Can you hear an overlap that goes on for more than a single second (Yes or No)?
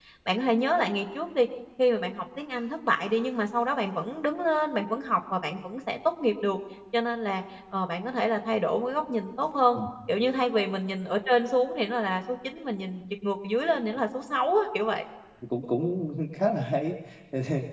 No